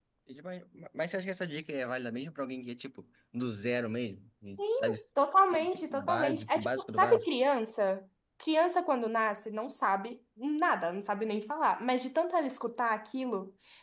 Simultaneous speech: Yes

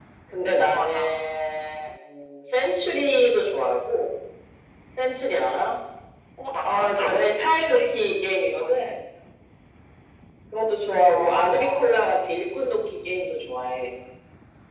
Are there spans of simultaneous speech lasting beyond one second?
Yes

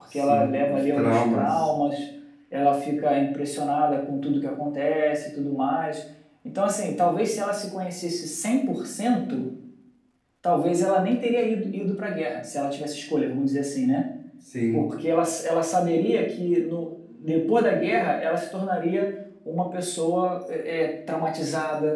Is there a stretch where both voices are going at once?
Yes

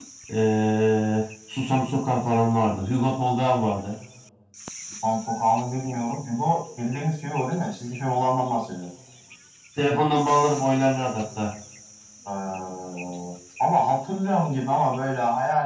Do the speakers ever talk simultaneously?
No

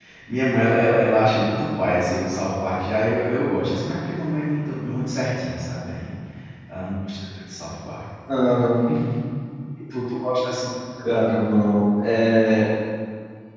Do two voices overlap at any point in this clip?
No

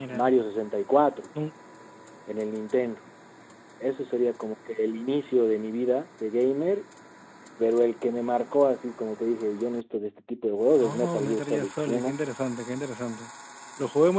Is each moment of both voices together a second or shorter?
No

